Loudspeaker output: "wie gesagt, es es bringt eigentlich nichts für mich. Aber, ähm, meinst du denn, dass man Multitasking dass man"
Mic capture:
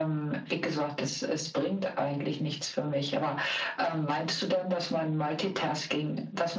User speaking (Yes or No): No